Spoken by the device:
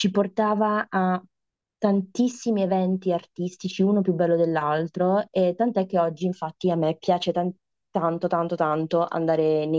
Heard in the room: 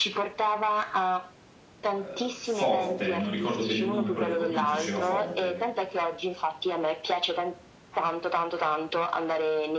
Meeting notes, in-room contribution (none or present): present